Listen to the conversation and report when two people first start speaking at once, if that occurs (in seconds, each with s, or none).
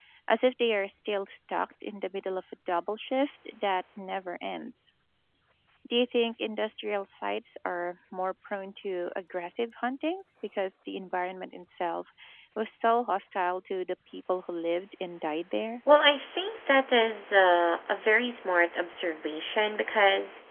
none